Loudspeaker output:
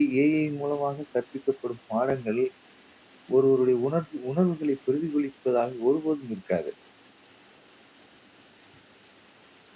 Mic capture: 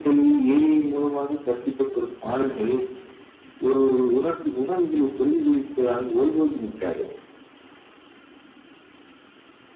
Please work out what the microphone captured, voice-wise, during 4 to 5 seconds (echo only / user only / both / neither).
echo only